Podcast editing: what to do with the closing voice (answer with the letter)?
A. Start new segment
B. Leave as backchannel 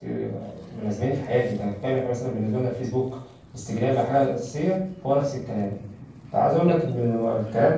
B